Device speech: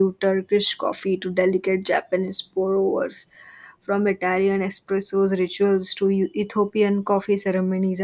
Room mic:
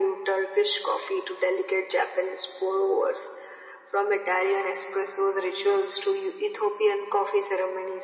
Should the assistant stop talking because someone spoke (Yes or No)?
No